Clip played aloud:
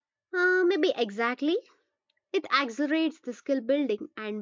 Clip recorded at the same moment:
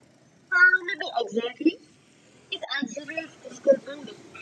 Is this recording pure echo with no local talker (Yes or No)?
Yes